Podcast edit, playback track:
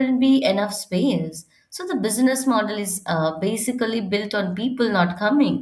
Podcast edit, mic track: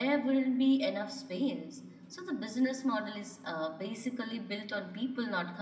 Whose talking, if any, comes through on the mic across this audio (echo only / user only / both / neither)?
echo only